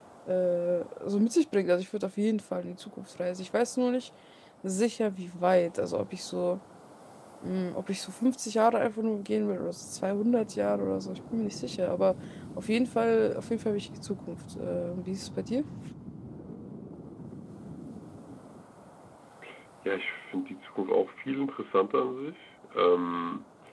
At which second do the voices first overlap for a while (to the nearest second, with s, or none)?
none